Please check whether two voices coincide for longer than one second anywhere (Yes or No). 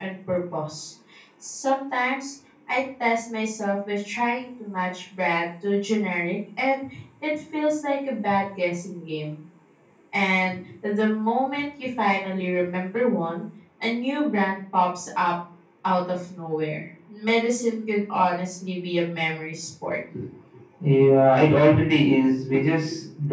No